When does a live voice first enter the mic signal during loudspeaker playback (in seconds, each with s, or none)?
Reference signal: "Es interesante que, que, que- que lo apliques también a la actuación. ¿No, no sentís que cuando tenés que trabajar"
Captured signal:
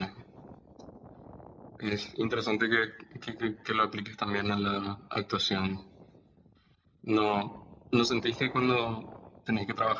none